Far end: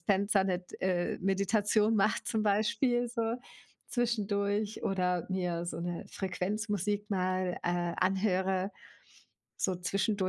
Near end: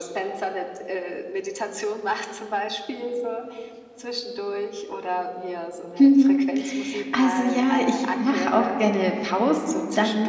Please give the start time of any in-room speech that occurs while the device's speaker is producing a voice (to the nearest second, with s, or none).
6 s